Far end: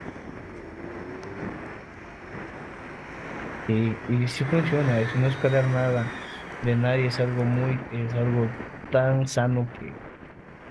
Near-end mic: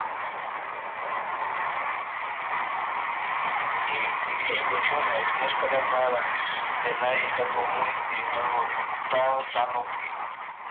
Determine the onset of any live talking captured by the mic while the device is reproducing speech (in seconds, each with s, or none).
4.2 s